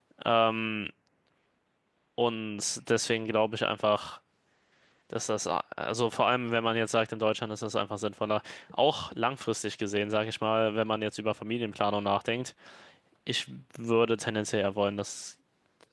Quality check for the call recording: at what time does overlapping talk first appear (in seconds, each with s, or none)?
none